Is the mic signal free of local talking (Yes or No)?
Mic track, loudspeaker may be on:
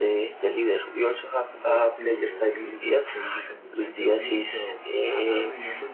No